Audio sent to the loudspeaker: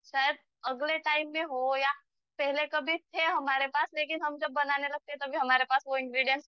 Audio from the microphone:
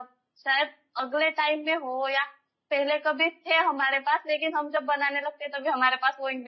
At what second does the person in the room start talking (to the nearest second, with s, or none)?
none